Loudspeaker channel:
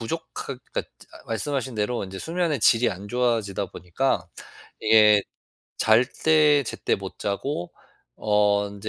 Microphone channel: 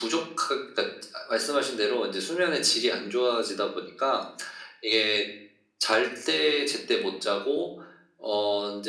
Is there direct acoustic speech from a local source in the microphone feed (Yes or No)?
No